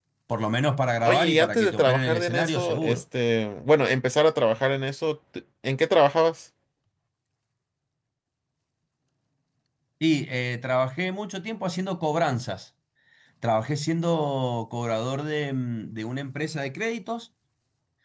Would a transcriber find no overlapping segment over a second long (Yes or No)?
No